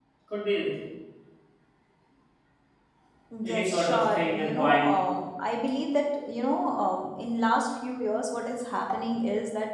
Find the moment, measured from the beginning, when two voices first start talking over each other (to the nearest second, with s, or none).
3 s